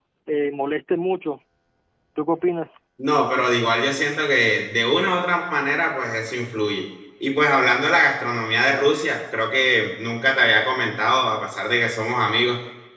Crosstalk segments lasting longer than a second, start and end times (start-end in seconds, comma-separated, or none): none